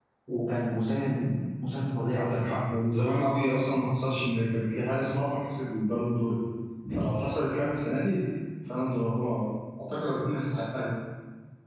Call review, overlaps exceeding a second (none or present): none